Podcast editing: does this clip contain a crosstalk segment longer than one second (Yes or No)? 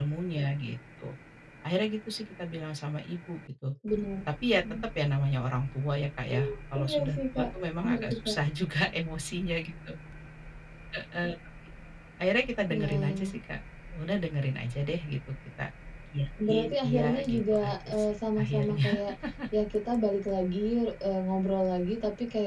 Yes